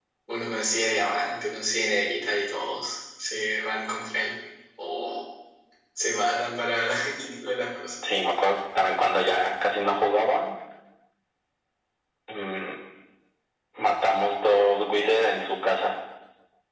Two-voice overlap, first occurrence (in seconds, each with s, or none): none